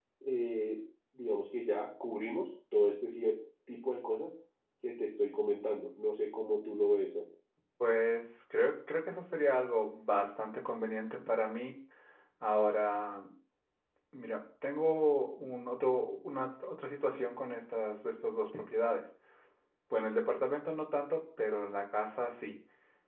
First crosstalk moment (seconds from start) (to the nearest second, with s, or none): none